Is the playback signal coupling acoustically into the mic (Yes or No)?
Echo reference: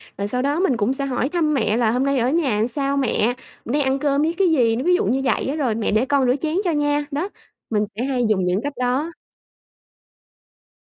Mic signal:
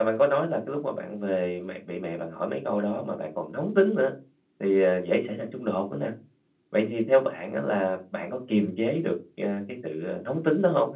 No